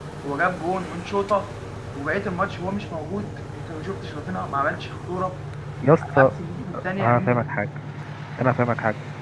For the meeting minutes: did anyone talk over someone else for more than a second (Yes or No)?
No